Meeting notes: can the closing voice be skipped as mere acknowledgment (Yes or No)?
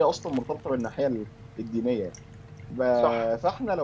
Yes